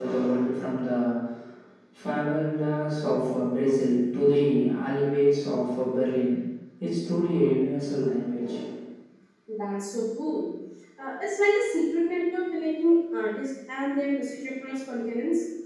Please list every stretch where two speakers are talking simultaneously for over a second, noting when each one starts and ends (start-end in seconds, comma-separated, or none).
none